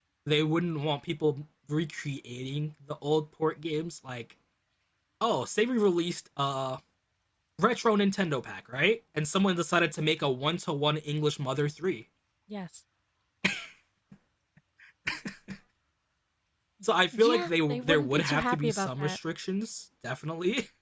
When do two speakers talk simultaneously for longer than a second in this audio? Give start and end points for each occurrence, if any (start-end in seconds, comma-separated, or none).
17.2-19.2